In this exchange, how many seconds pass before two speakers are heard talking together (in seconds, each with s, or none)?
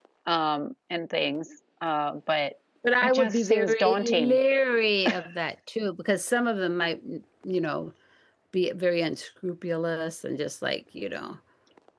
3.0 s